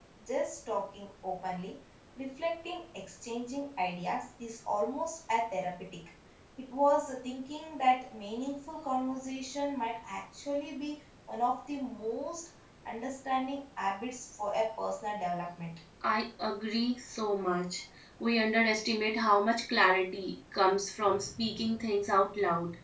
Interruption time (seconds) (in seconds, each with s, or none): none